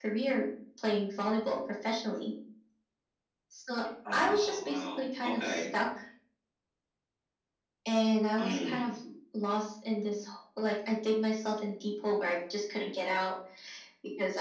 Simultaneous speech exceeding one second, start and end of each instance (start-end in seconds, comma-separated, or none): 4.1-5.7